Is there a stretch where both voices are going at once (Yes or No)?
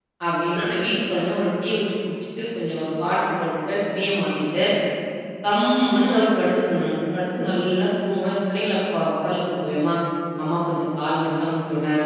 No